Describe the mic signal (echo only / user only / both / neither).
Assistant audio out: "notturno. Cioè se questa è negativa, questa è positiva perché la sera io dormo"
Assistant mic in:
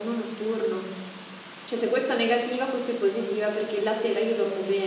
echo only